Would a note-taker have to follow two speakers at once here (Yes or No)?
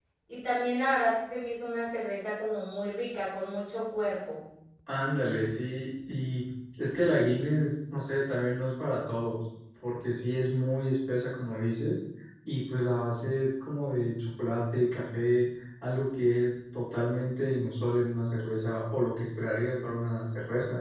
No